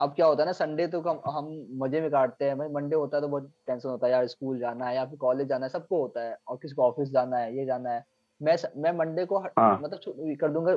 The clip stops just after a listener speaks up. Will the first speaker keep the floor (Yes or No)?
Yes